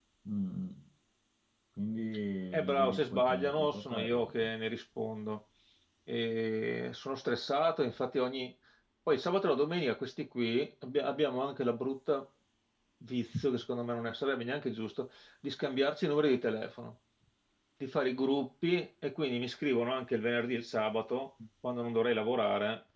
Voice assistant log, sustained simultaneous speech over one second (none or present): present